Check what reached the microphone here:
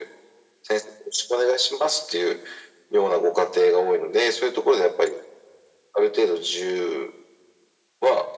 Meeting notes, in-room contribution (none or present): none